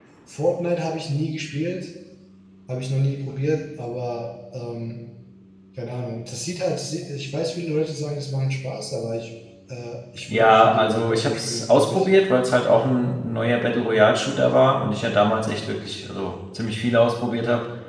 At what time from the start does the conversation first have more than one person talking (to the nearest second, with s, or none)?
10 s